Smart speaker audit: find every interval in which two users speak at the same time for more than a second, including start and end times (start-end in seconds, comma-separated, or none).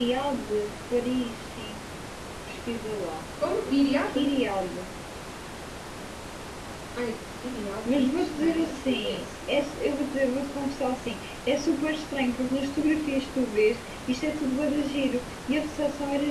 7.8-9.2